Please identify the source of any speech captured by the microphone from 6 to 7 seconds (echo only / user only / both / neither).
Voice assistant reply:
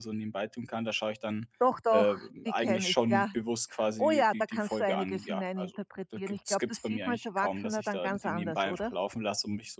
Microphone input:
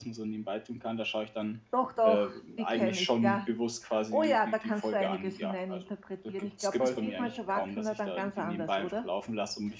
both